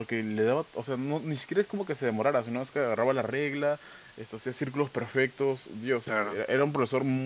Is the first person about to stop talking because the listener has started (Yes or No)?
No